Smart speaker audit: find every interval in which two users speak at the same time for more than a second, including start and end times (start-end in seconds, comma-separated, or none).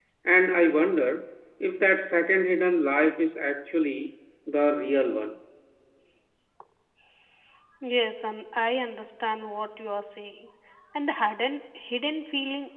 none